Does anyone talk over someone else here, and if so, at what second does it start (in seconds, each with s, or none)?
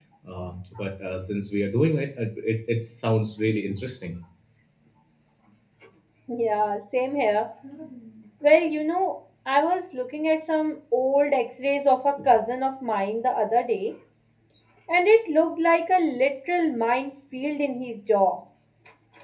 none